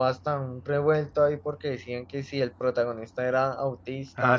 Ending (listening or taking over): listening